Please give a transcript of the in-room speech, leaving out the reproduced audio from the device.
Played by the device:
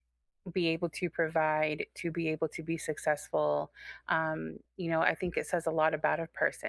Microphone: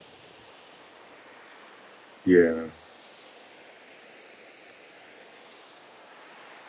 yeah,

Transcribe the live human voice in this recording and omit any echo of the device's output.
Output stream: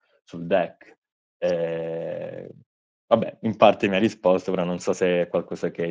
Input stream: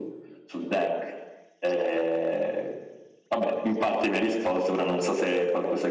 none

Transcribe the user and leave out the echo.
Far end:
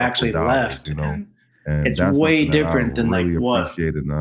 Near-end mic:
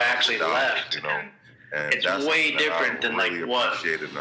none

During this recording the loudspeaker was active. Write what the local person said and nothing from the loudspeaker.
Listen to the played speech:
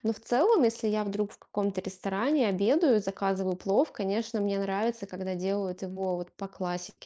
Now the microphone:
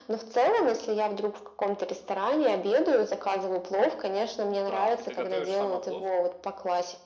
Так, и ты готовишь сама плов?

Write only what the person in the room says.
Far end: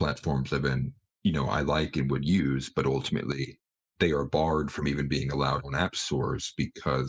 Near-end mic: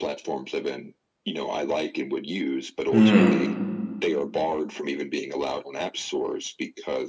Mm,

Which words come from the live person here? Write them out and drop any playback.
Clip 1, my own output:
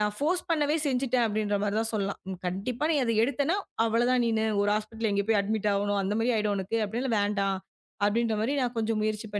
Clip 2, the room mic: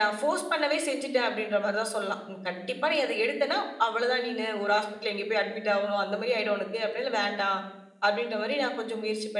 none

